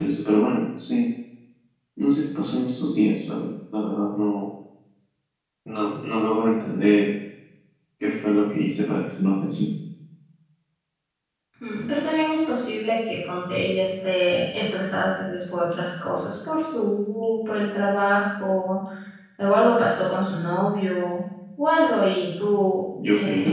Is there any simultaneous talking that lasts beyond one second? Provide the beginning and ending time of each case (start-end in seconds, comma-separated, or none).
none